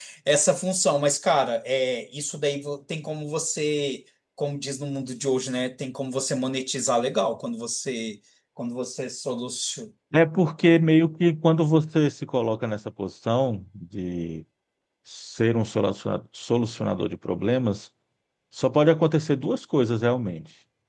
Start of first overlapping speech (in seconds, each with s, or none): none